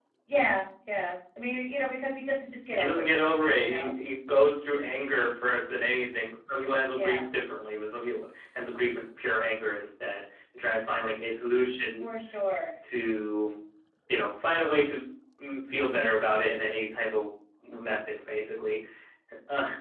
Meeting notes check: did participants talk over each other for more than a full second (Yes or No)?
No